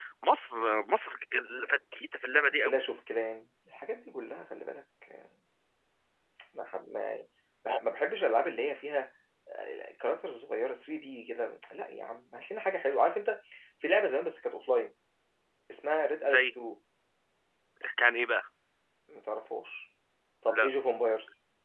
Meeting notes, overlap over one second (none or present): none